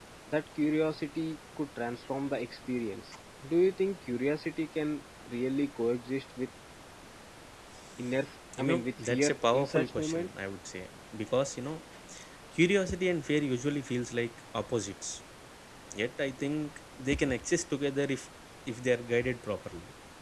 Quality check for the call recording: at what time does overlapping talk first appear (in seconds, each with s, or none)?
8.6 s